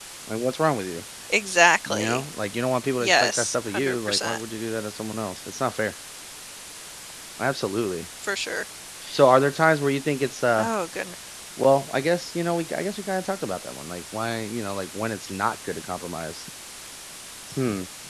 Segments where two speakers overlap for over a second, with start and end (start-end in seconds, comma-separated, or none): 3.0-4.4